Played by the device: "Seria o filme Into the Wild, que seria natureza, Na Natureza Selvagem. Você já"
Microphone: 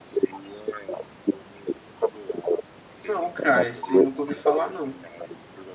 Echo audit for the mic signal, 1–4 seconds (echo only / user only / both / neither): both